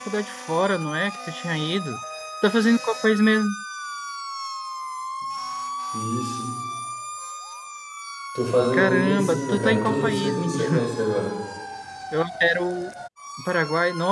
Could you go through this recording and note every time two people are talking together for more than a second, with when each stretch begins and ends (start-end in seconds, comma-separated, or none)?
8.7-10.9